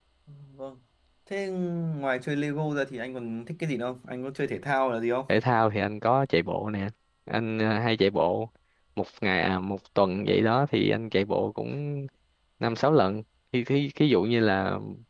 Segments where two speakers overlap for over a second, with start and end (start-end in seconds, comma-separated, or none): none